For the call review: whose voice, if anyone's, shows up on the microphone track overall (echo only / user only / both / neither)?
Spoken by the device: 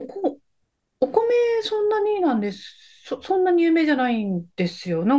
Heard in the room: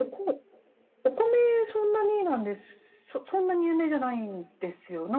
echo only